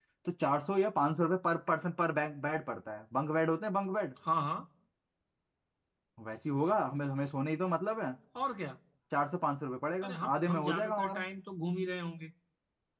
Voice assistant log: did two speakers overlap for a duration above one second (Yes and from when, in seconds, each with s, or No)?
Yes, from 10.0 s